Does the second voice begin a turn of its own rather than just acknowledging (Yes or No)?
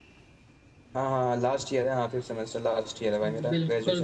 Yes